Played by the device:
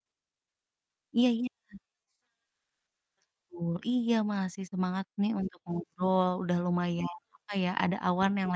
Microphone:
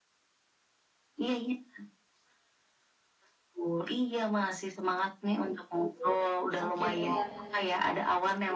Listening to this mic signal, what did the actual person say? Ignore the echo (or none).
Mmm, oke, bener.